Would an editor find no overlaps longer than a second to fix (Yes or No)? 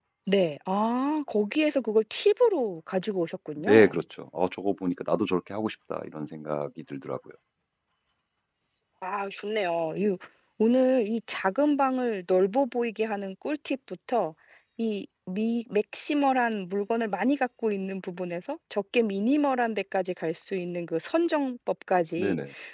Yes